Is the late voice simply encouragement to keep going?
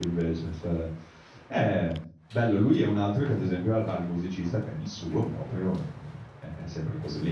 Yes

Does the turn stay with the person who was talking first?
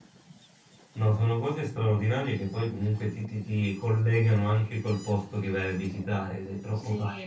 No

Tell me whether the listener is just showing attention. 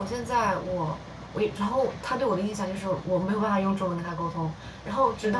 Yes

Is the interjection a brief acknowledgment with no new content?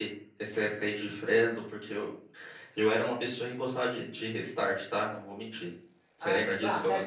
No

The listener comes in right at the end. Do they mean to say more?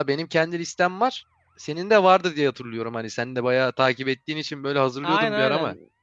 Yes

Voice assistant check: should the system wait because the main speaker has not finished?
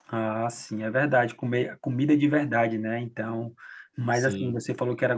Yes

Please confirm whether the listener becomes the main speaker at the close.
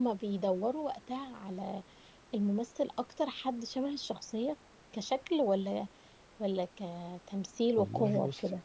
Yes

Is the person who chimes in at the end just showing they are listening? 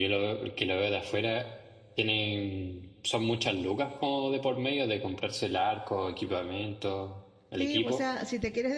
No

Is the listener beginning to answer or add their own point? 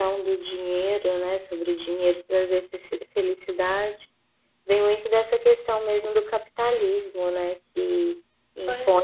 No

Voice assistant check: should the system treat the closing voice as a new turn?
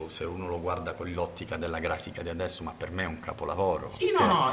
Yes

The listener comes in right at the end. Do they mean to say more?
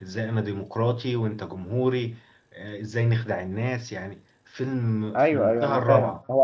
Yes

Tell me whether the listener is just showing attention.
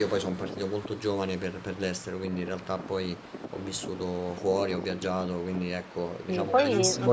No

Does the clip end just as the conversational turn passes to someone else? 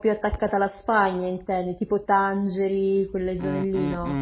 Yes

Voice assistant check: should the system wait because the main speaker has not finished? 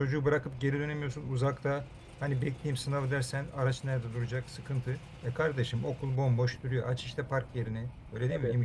Yes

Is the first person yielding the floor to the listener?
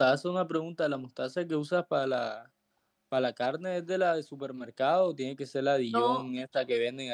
No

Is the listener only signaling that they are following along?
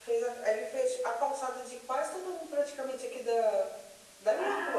No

